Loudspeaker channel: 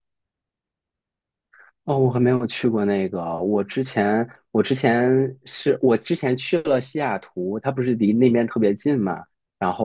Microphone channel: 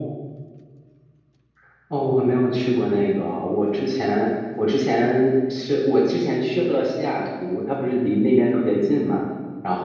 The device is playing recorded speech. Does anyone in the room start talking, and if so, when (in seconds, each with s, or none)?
none